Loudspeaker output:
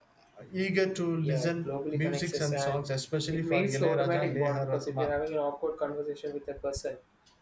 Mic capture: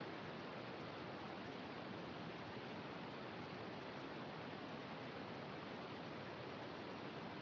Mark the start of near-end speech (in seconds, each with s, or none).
none